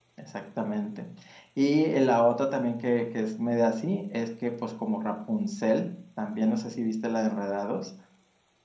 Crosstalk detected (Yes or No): No